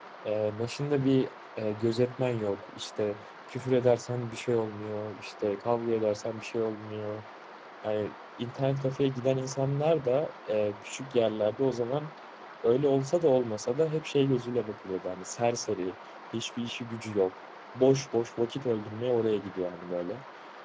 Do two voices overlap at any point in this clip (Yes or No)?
No